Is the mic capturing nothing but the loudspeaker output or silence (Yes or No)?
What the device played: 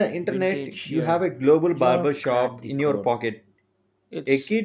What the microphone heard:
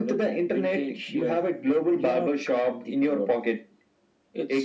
Yes